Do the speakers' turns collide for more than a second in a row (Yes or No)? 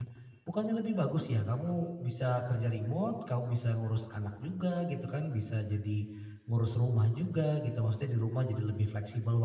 No